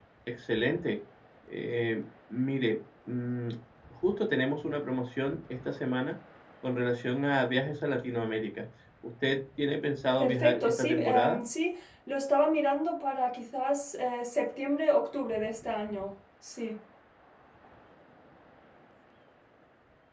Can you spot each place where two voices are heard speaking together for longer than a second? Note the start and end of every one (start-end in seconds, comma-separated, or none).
10.2-11.4